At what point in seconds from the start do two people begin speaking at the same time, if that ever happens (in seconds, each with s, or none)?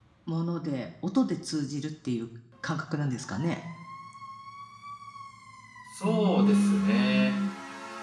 6.0 s